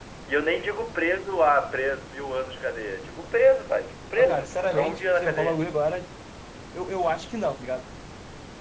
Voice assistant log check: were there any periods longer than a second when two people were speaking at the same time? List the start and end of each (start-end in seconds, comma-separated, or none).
4.2-5.6